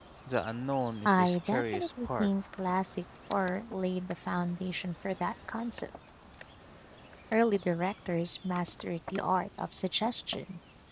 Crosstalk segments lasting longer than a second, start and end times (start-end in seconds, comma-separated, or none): 1.1-2.3